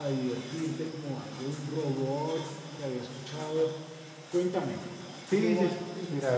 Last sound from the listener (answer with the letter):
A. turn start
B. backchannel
A